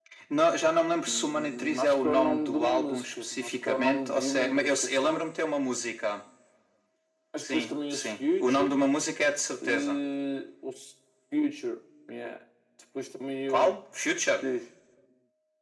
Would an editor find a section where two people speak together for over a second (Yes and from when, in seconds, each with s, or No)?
Yes, from 1.0 s